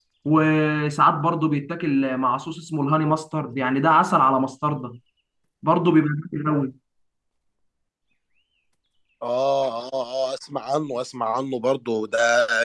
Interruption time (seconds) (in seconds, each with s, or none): none